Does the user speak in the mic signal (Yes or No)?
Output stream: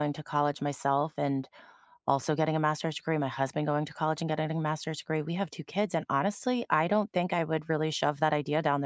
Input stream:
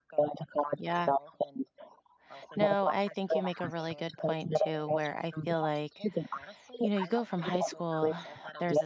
Yes